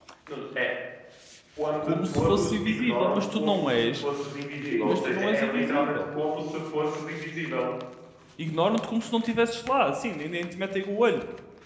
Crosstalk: present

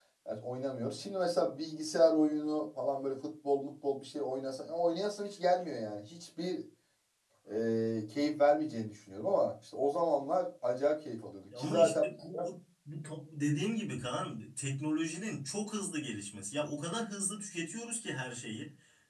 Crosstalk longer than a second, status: none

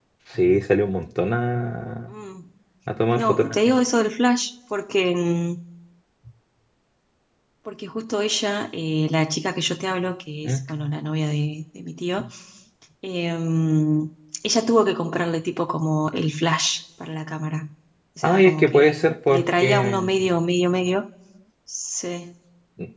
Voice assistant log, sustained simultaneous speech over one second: present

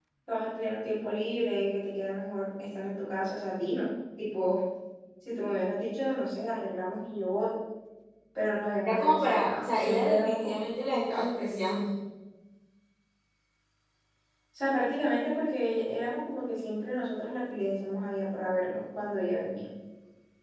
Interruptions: present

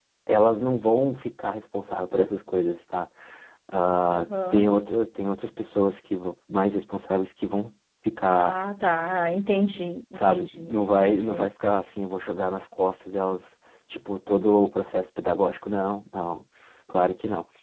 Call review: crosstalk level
present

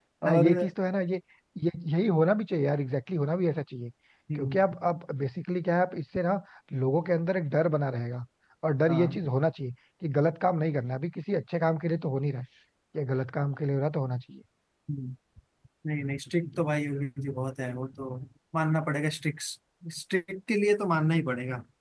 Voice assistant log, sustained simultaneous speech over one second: none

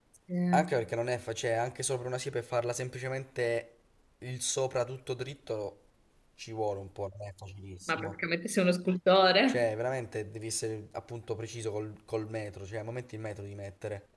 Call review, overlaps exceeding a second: none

